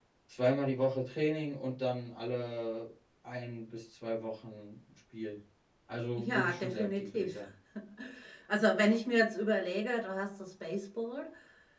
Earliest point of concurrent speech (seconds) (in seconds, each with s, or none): 6.2 s